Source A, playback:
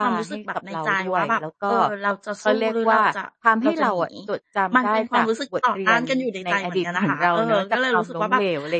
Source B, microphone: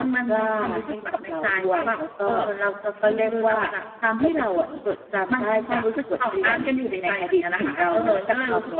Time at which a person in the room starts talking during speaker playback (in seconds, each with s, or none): none